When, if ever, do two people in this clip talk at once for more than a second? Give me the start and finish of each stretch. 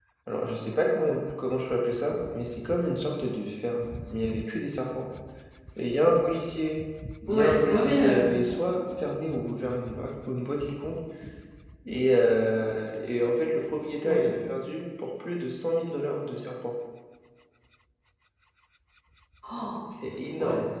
7.3-8.6

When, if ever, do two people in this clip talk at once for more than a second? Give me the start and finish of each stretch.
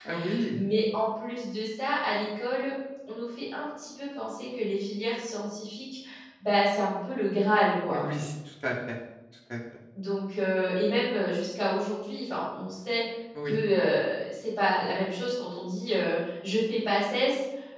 none

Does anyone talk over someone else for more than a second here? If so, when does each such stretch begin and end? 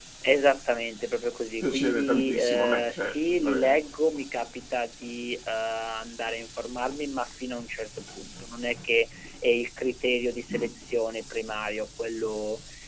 1.6-3.8

